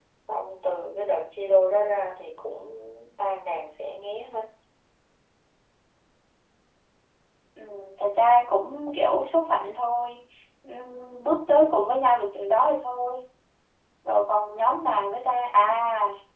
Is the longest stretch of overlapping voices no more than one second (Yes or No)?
Yes